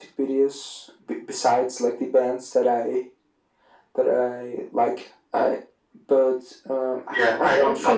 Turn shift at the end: Yes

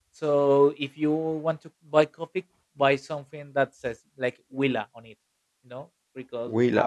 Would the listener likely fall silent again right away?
No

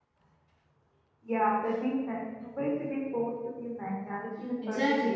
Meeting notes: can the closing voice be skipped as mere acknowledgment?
No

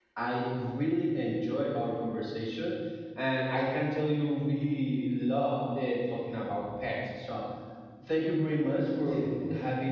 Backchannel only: Yes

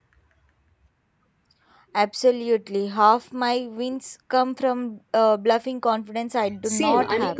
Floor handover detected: Yes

